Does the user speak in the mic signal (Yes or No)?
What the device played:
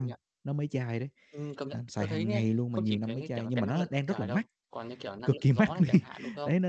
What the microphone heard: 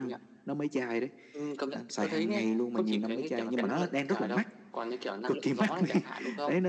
No